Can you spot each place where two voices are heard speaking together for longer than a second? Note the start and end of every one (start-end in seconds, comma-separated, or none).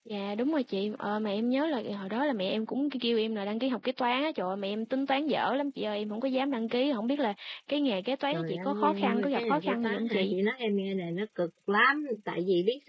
8.3-10.3